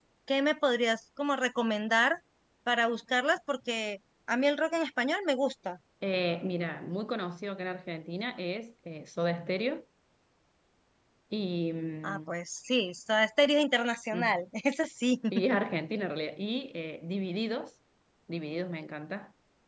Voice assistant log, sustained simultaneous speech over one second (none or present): none